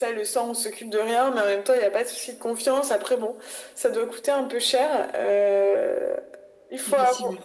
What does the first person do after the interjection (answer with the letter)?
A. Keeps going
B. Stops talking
A